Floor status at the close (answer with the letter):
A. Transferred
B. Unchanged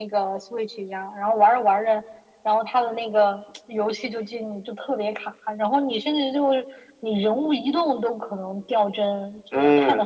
A